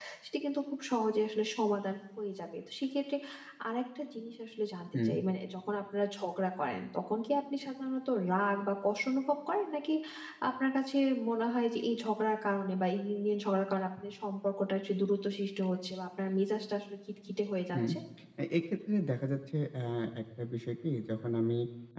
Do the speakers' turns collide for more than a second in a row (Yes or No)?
No